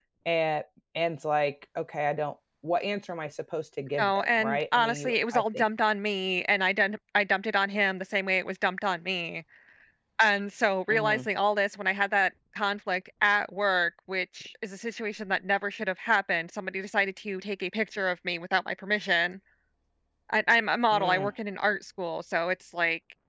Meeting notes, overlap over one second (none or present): present